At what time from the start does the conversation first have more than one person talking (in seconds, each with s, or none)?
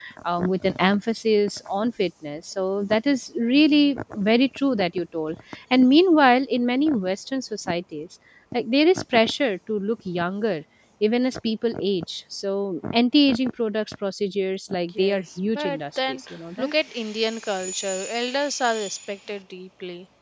14.9 s